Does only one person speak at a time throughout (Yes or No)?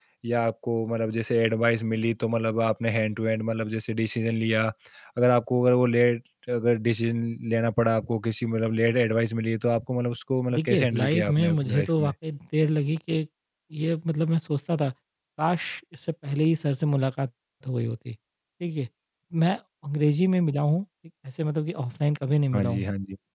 No